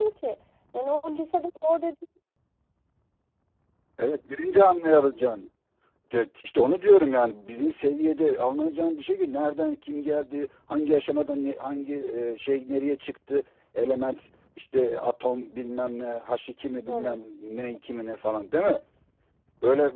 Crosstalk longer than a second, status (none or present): none